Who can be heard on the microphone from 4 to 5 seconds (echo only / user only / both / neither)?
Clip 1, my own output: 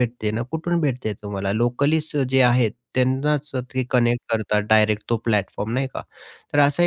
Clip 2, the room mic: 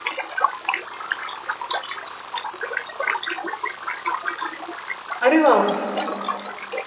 neither